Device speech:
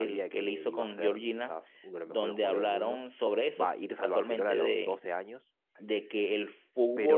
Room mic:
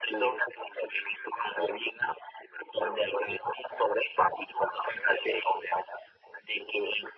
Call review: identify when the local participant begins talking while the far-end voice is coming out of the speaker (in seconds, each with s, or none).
none